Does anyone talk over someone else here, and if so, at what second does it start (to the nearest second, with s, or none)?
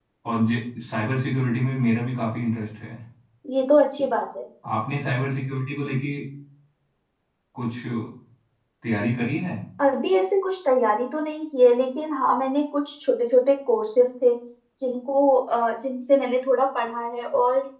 none